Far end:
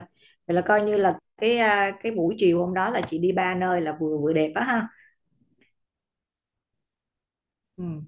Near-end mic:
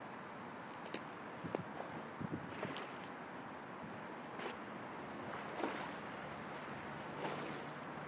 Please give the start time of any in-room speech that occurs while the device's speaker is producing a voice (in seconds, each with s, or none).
none